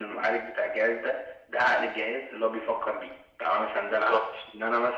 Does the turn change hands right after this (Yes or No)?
No